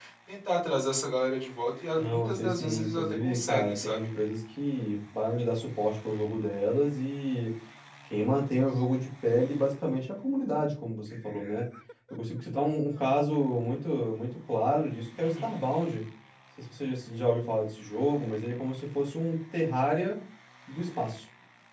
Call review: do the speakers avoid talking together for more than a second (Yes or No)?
No